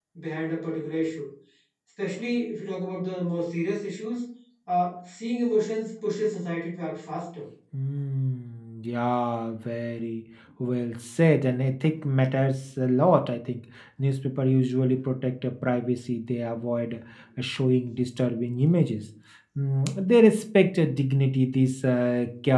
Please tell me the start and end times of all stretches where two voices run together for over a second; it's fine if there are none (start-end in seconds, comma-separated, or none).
none